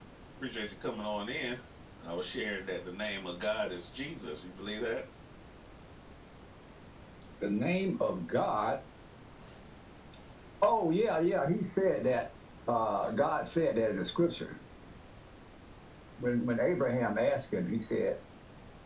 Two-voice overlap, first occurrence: none

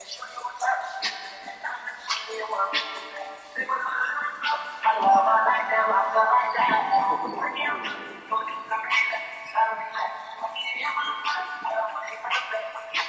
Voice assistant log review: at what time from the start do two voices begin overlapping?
none

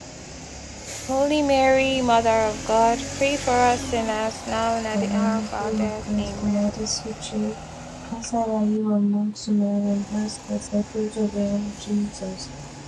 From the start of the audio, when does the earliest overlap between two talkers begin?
4.9 s

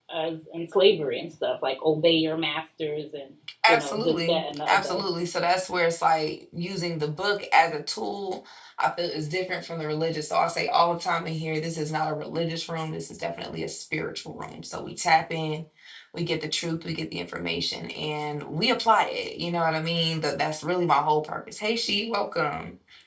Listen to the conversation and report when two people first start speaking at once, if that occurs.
3.6 s

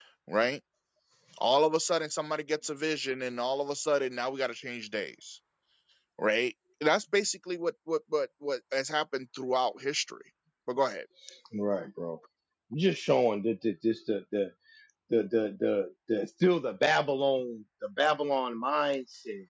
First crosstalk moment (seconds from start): none

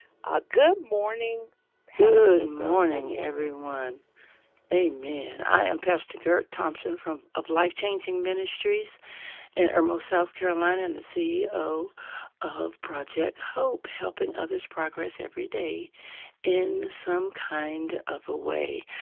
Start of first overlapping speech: 1.9 s

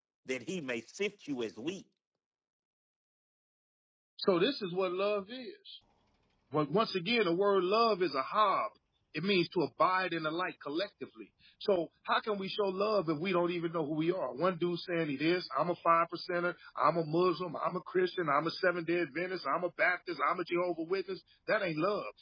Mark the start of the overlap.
none

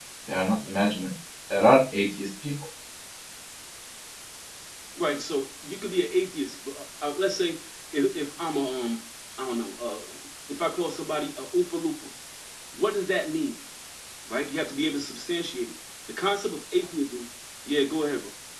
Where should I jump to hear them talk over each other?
none

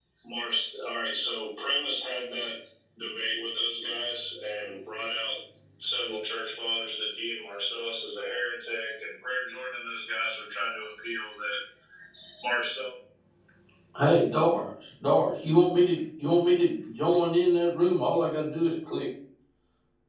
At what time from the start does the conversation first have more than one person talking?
none

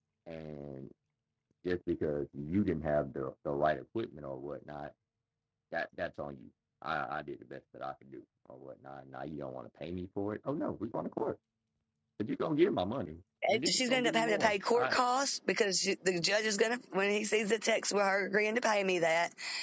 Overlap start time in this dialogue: 13.4 s

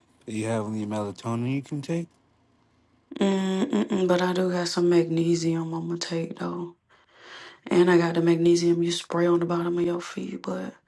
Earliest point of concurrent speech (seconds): none

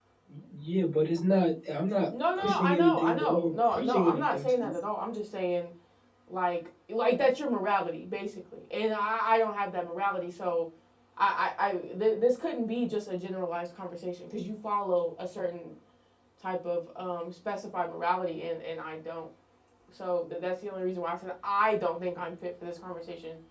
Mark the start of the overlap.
2.4 s

